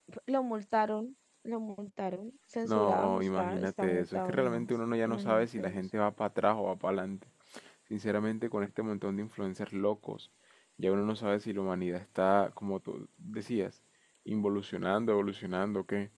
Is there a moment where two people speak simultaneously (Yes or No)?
Yes